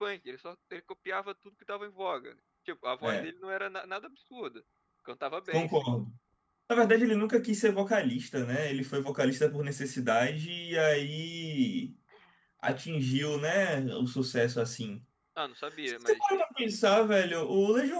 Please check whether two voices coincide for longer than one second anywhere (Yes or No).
No